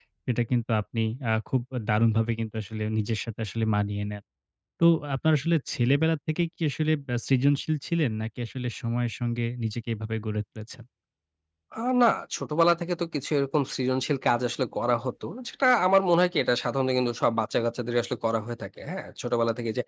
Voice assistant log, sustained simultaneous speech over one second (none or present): none